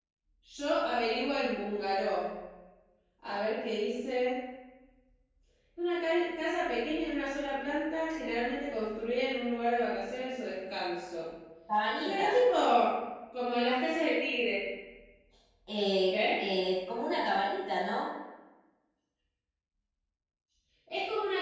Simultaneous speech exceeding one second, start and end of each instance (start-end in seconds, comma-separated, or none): none